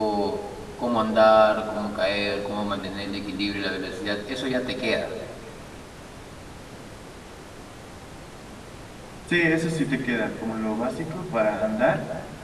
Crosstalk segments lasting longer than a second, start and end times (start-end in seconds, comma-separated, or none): none